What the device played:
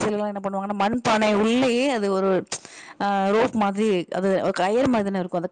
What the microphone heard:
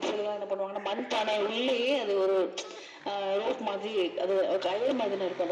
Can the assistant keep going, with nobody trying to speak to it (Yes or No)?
Yes